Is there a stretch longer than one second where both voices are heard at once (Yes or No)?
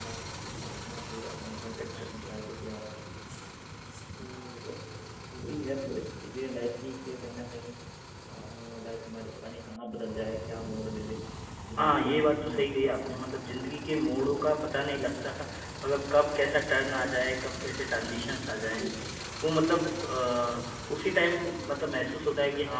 Yes